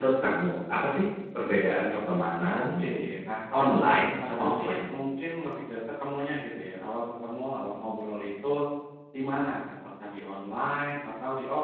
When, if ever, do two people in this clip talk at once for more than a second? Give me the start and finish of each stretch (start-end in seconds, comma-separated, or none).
3.6-4.8